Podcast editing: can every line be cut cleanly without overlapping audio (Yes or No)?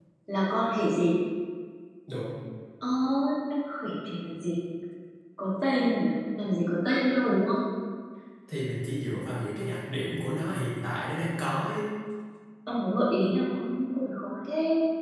Yes